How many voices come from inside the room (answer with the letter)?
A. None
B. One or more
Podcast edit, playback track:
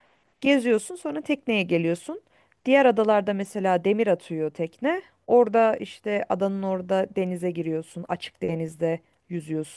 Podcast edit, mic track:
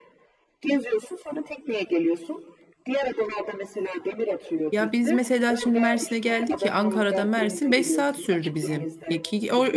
B